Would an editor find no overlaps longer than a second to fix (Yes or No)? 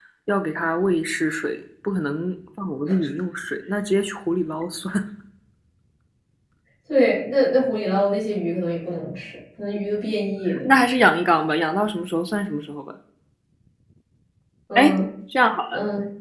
Yes